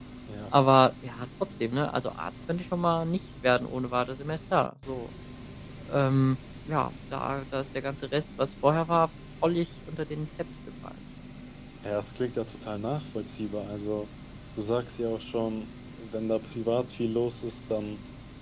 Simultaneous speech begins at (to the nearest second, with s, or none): none